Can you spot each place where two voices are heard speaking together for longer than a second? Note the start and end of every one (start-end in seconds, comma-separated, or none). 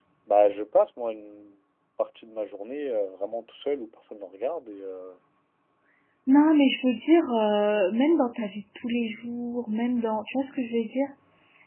none